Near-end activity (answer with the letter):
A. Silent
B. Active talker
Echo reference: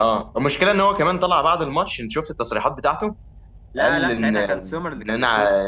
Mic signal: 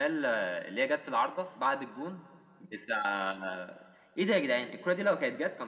B